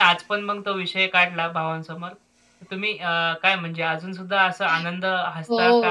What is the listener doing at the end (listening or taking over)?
taking over